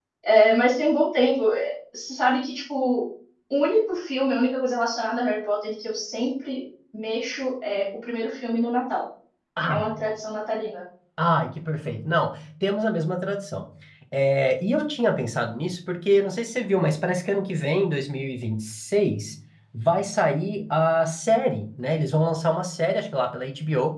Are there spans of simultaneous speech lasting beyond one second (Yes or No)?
No